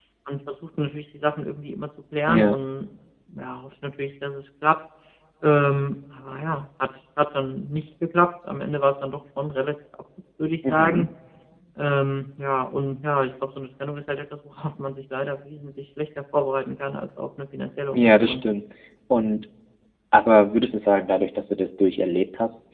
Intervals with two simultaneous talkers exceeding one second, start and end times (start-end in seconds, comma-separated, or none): none